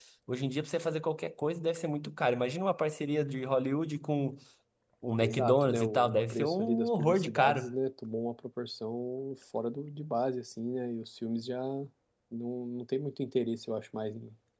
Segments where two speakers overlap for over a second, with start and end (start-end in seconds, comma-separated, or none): 5.2-7.6